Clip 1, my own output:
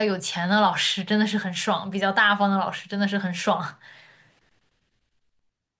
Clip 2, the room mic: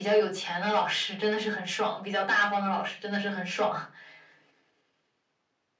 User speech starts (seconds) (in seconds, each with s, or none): none